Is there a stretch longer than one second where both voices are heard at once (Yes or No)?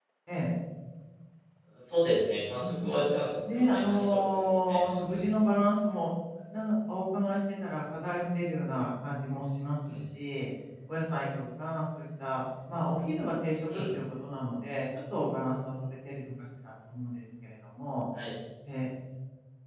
Yes